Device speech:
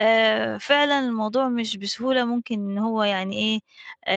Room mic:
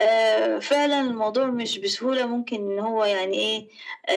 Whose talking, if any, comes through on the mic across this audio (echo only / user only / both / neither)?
echo only